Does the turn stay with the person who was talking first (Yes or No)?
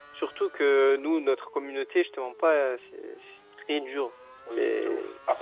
No